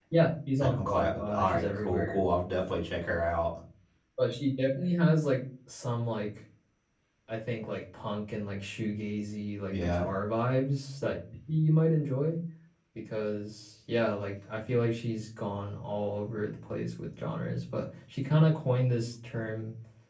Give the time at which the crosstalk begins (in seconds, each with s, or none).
0.6 s